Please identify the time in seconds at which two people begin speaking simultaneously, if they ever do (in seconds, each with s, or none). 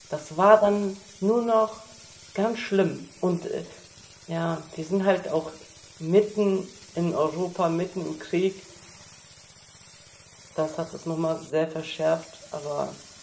none